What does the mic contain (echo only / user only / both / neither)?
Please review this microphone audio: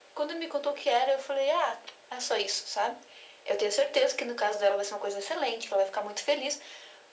echo only